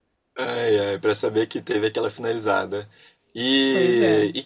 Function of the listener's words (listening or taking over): listening